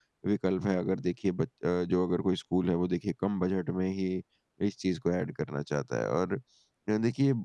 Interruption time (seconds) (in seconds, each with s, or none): none